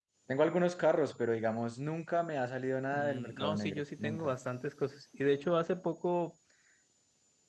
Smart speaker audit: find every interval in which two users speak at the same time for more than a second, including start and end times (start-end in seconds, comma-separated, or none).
2.9-4.3